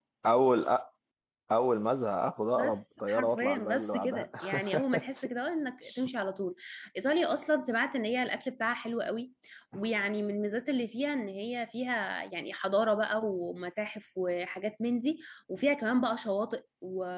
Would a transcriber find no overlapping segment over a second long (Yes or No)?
No